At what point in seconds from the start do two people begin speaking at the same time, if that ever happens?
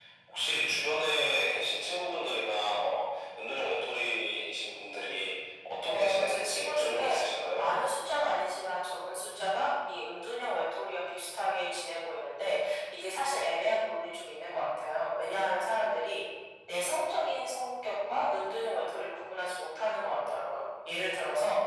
5.9 s

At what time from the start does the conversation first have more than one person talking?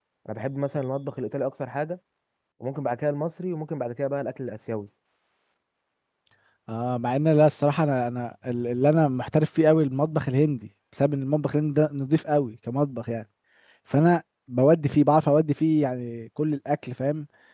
none

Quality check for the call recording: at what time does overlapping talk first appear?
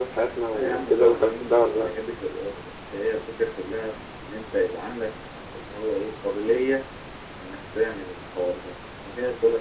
0.5 s

